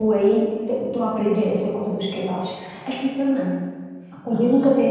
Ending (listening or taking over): listening